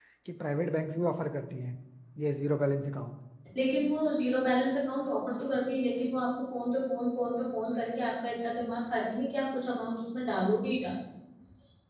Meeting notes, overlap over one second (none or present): none